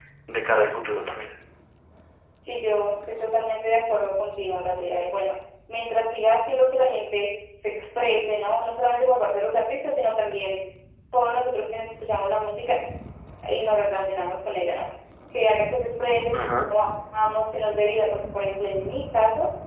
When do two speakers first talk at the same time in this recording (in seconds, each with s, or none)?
none